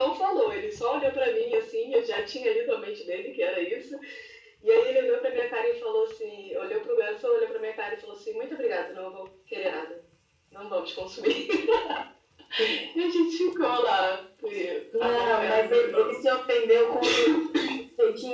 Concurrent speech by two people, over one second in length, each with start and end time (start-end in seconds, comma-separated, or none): 14.9-16.2